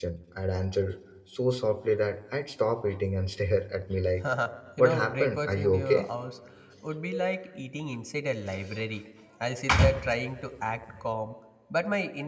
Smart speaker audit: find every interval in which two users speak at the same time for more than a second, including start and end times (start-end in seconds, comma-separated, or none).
4.8-6.1